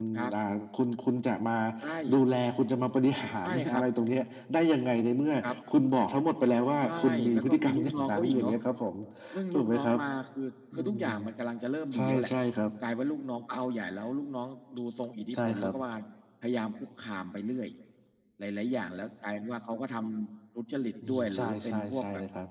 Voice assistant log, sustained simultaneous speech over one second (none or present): present